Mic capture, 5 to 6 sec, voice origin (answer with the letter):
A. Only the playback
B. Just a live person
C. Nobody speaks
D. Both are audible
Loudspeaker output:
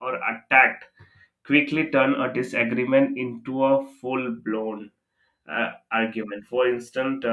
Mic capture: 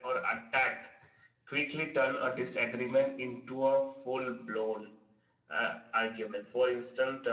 A